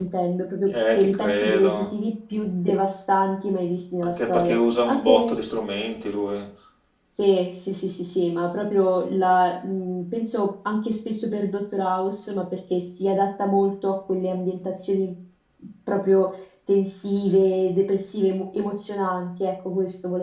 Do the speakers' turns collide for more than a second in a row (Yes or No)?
Yes